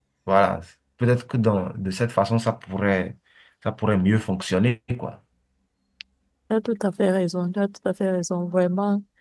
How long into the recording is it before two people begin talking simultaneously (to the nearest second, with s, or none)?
none